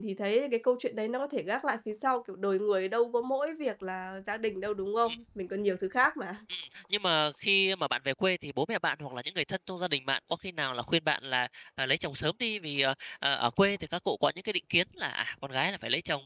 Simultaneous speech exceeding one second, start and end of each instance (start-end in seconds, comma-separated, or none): none